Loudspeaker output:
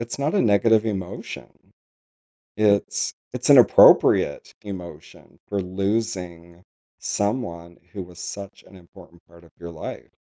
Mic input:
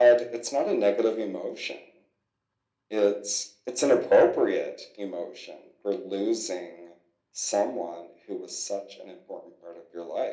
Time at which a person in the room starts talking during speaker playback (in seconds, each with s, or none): none